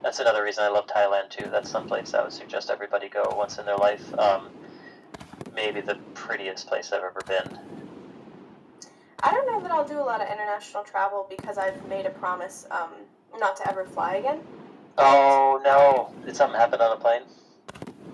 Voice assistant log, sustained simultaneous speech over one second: none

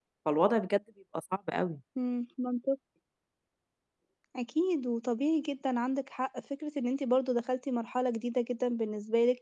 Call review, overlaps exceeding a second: none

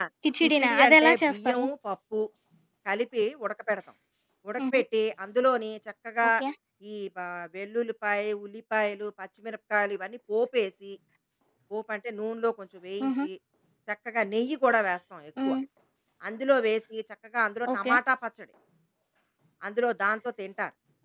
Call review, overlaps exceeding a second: present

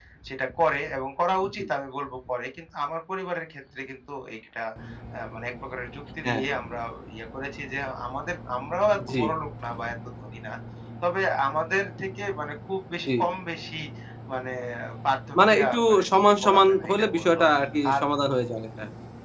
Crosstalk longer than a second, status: present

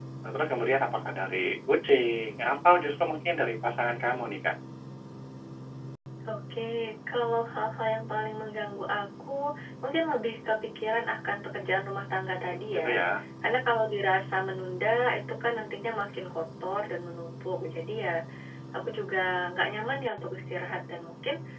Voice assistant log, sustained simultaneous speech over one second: none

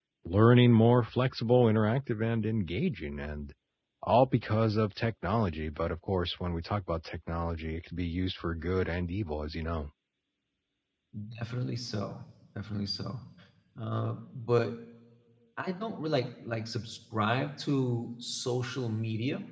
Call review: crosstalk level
none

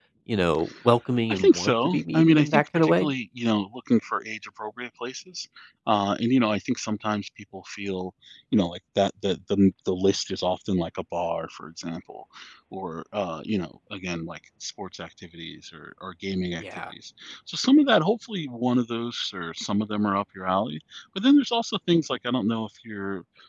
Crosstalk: present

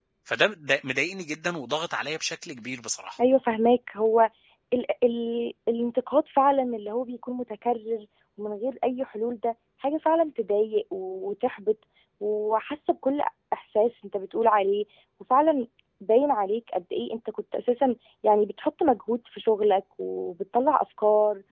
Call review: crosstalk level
none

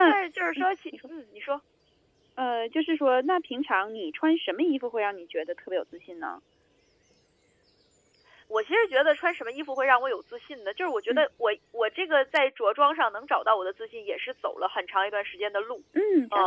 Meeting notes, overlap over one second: none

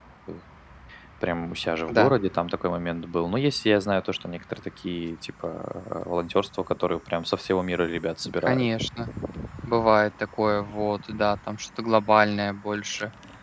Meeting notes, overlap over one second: none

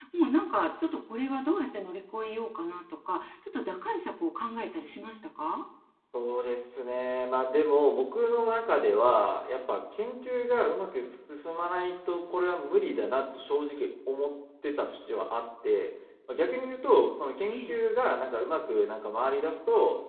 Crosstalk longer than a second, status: none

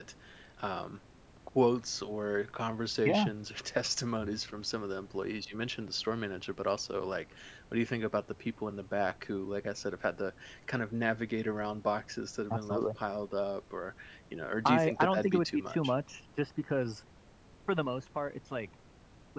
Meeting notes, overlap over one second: present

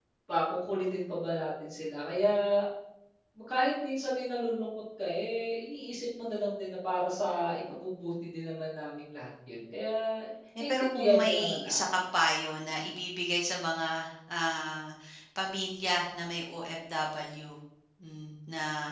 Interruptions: present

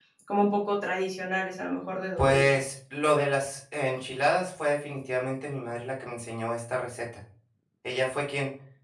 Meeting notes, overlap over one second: none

